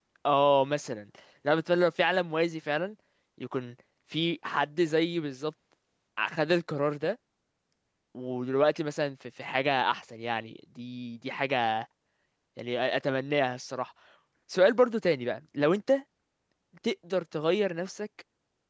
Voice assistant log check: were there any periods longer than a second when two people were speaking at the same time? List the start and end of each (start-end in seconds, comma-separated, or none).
none